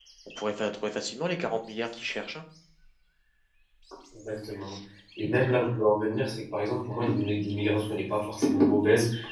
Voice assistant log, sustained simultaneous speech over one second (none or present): none